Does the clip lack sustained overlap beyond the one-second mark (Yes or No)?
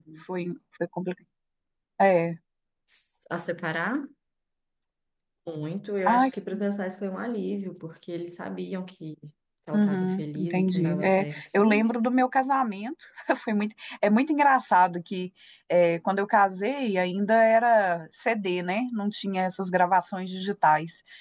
No